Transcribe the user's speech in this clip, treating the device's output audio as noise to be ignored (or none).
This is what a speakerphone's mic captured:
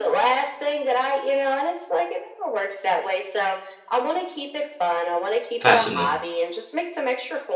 fascinating.